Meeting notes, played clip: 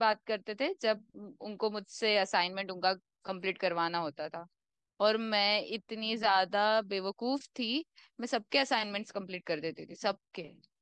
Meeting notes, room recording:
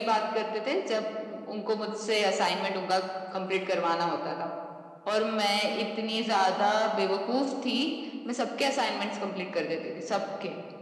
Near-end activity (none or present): none